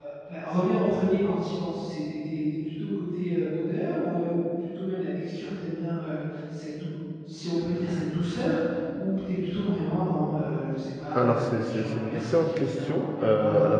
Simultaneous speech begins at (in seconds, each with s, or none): 11.1 s